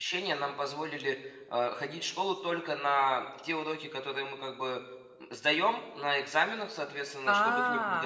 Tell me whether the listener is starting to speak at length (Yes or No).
No